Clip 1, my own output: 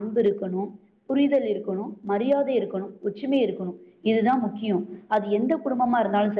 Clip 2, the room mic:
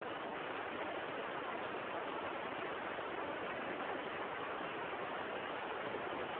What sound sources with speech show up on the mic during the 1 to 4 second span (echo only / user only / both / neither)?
neither